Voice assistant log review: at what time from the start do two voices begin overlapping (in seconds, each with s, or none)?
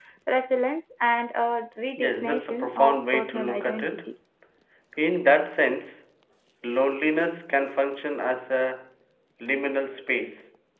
2.0 s